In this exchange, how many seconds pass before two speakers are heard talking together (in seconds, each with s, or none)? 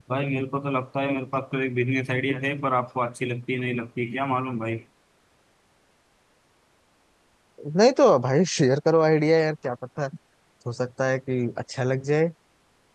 none